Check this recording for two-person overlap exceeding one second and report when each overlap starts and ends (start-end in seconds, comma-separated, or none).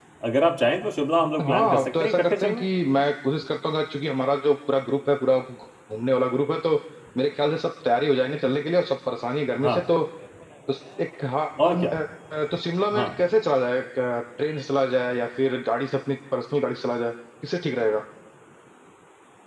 1.4-2.6